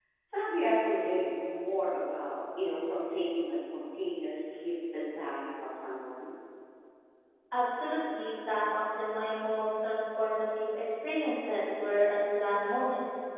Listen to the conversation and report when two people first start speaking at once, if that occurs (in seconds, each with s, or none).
none